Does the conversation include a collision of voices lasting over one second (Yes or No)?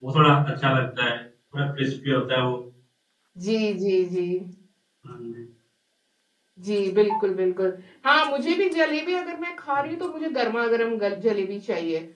No